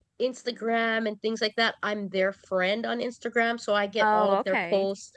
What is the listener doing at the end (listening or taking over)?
listening